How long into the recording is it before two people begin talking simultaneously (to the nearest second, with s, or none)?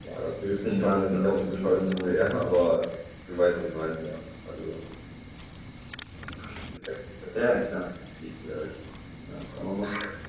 1 s